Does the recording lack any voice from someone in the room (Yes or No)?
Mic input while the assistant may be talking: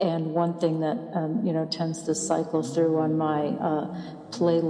No